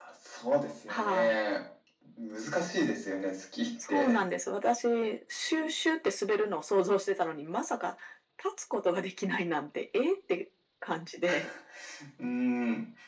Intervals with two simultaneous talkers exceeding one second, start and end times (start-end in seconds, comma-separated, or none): none